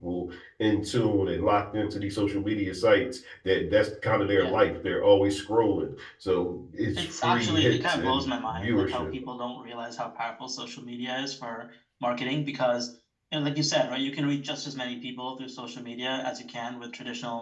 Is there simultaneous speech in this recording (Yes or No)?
Yes